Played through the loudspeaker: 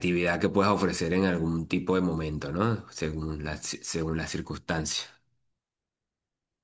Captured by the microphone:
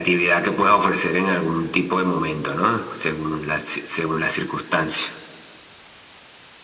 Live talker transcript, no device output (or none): none